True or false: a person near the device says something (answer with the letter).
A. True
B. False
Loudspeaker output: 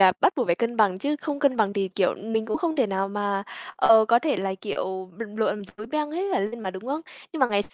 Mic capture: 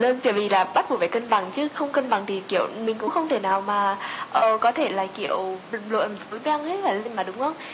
B